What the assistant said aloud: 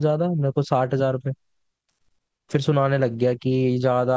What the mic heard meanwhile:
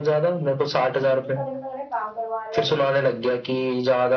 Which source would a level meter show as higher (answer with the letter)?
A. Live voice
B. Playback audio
B